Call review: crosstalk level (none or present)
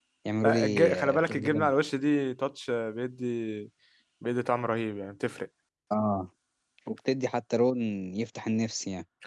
present